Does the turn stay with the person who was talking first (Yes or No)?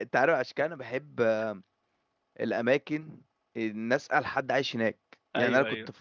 Yes